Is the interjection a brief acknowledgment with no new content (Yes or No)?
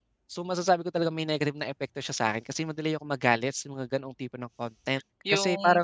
No